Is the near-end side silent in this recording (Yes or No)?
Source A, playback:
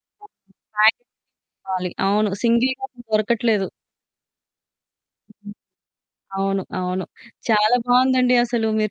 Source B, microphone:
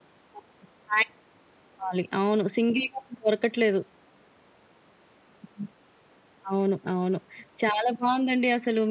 Yes